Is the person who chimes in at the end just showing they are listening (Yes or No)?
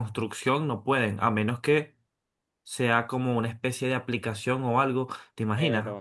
No